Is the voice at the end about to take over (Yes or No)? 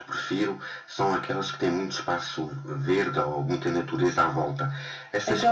No